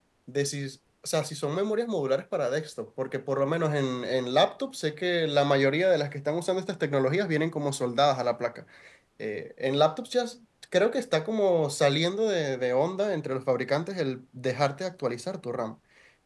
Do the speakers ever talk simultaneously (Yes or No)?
No